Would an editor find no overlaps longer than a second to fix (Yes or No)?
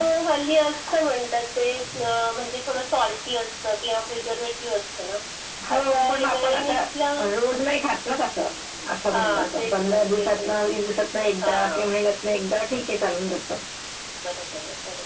No